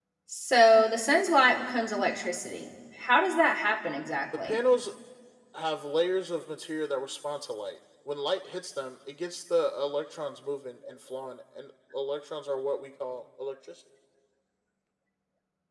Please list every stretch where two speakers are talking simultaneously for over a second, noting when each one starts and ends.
none

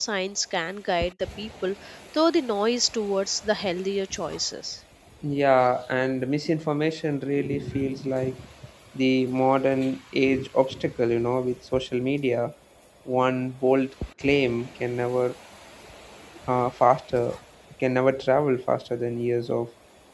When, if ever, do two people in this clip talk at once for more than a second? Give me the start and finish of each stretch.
none

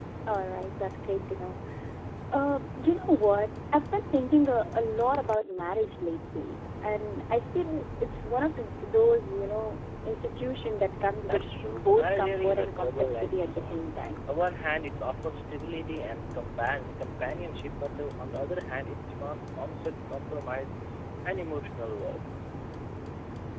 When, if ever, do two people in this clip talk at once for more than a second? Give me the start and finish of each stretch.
11.2-13.8

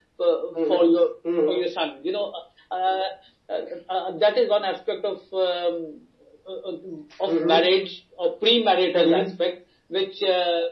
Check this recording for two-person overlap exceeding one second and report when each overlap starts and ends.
none

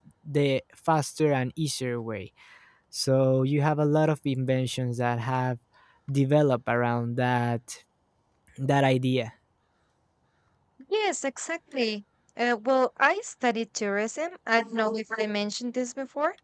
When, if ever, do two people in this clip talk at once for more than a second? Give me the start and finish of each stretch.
none

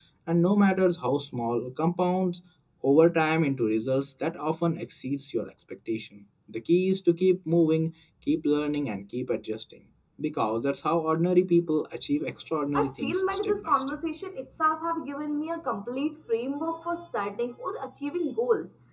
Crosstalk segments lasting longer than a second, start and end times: 12.7-14.0

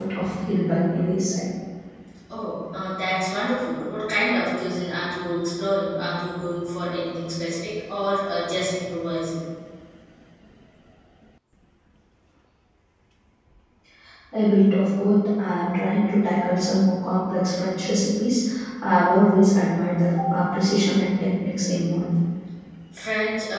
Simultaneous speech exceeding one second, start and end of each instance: none

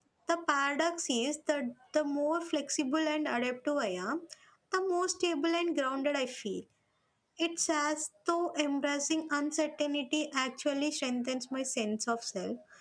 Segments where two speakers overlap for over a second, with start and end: none

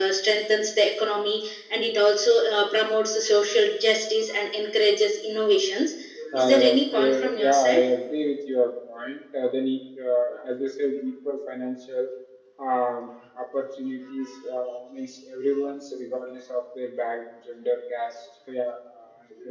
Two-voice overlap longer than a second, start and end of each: 6.4-7.6

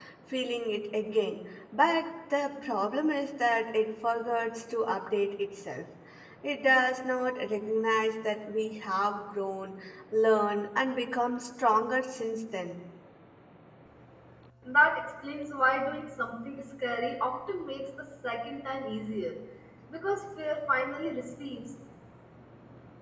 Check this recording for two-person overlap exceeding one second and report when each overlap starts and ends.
none

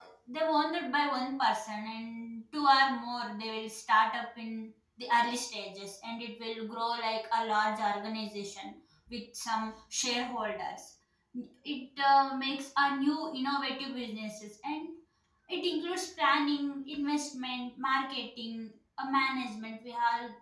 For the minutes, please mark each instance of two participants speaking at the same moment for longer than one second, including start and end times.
none

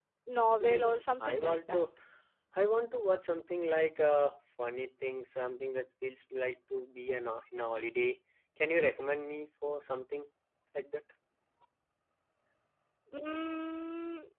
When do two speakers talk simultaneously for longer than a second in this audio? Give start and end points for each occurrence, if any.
0.6-1.8

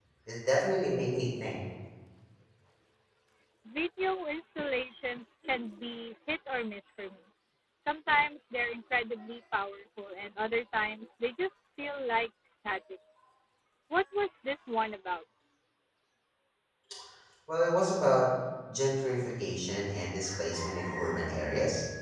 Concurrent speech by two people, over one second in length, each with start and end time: none

